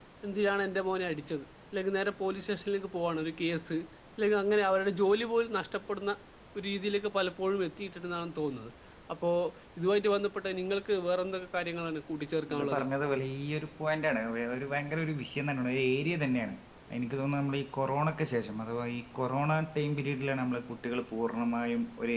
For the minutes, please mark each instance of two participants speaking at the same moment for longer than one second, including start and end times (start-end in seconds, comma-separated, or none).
none